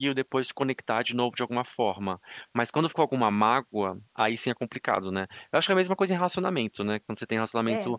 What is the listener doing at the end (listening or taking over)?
listening